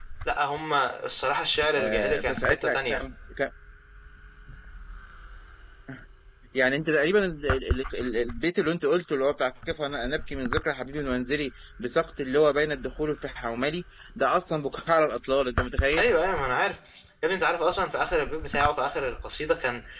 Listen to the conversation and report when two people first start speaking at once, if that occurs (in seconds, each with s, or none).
1.7 s